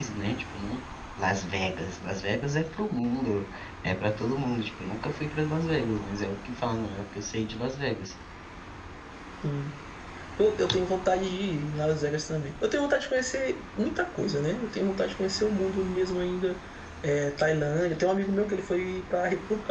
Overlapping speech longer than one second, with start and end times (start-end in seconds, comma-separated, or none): none